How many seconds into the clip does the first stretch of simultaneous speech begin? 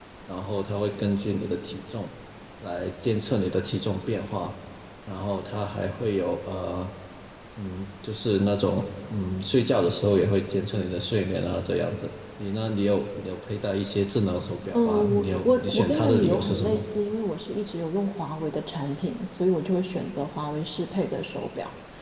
14.7 s

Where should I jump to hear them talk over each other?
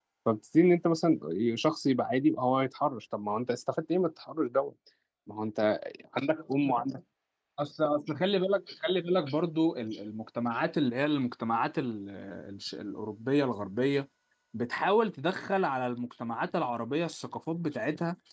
none

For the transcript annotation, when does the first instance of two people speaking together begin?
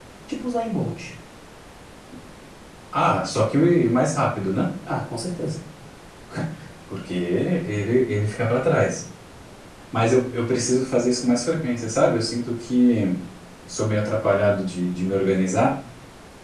none

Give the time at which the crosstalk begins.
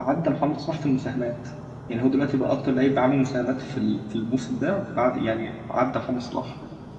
none

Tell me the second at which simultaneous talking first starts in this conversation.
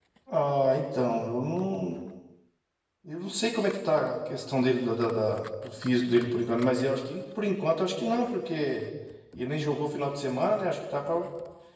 none

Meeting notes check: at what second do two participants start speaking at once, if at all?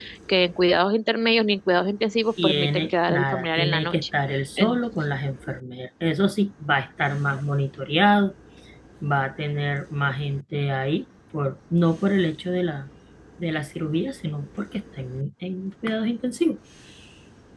2.4 s

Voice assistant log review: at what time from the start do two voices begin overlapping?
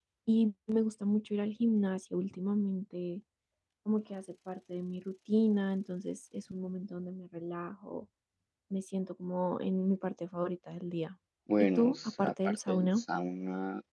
11.6 s

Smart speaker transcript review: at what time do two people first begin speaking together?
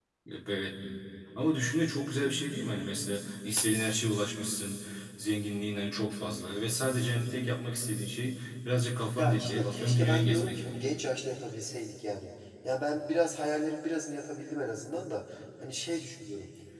9.2 s

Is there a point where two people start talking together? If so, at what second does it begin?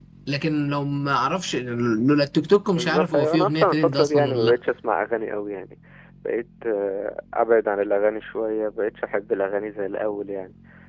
2.8 s

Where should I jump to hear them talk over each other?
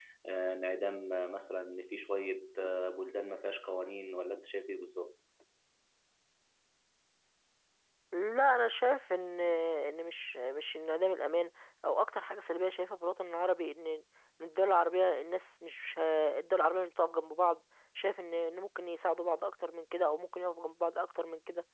none

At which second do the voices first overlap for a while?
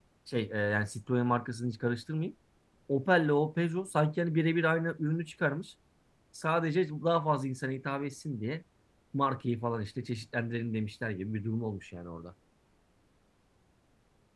none

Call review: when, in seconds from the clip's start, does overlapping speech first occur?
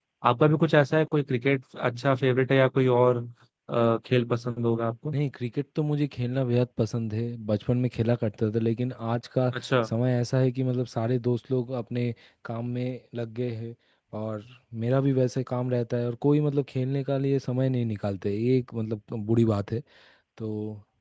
none

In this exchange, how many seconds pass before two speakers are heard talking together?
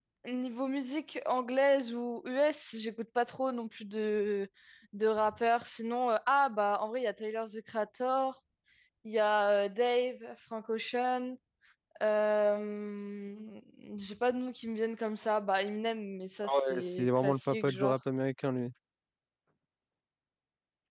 16.4 s

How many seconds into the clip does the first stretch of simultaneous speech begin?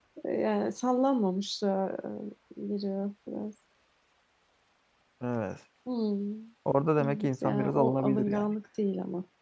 7.0 s

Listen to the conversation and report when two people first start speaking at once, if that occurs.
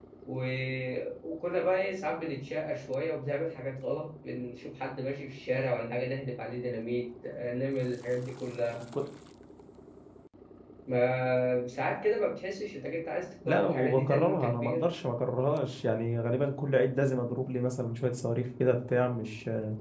13.4 s

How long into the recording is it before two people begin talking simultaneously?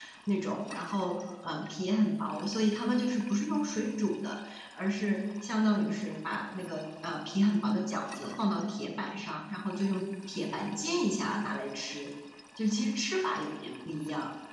none

